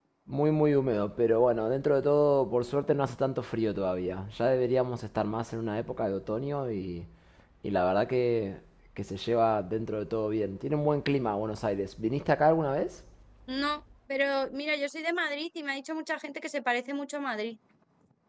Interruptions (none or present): none